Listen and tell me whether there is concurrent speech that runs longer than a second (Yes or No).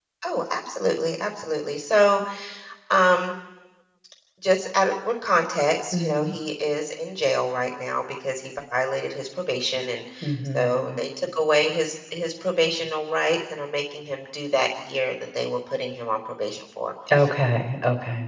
No